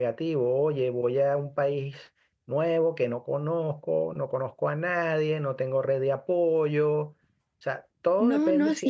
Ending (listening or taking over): taking over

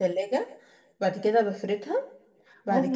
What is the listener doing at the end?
taking over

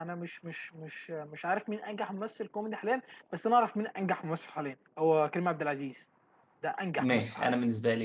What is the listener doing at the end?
taking over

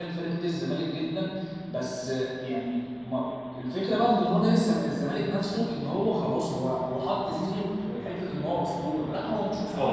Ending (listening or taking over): taking over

